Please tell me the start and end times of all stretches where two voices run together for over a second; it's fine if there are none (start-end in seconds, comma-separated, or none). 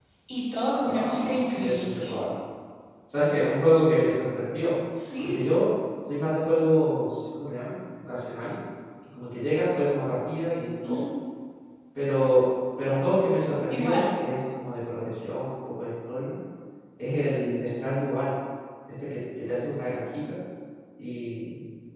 0.8-2.1